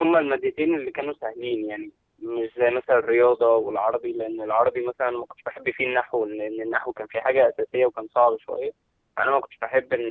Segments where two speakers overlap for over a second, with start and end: none

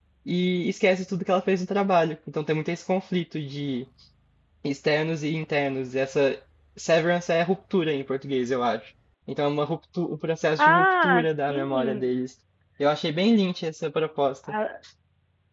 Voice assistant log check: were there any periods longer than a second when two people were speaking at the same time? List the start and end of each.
10.6-12.1

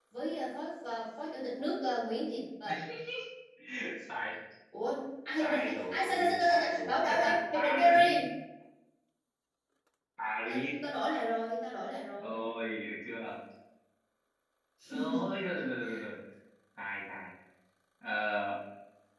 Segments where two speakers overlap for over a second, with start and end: 5.4-8.2

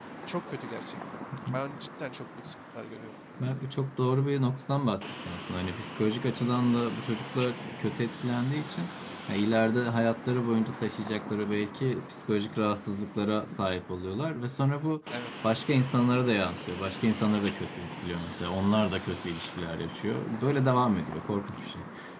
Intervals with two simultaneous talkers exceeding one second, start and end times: none

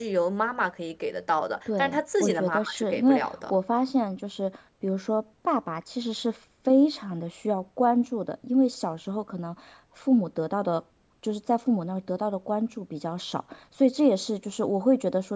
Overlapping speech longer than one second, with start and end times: 1.8-3.6

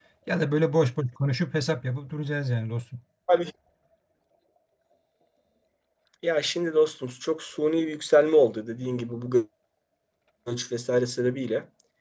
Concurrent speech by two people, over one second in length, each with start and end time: none

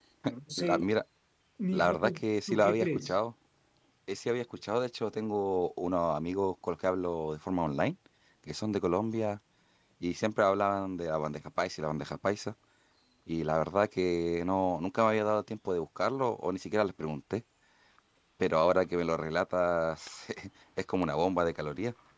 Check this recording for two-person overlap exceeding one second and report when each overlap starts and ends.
1.7-3.2

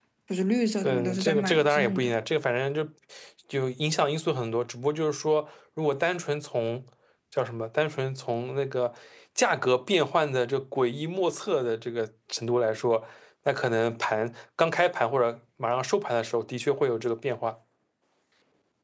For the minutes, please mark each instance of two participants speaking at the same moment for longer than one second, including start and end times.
0.8-2.1

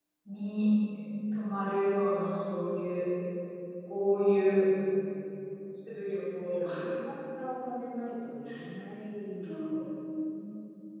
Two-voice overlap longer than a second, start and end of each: none

